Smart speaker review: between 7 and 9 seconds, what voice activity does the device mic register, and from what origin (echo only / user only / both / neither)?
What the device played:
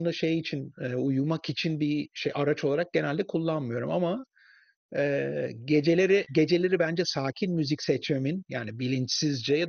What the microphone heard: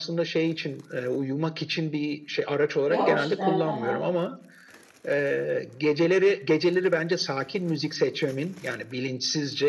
echo only